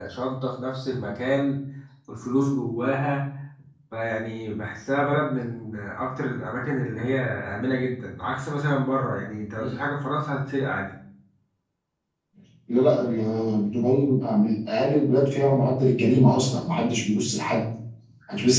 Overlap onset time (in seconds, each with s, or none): none